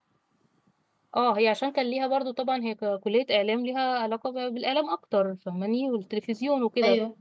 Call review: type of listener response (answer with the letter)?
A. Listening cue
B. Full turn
A